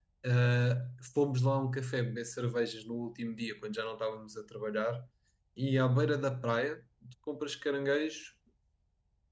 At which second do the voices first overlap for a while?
none

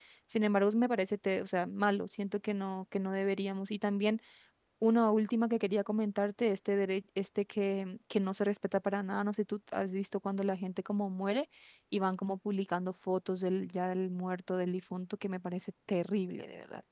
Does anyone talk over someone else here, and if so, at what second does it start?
none

